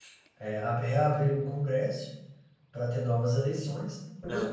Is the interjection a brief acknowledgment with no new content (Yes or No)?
Yes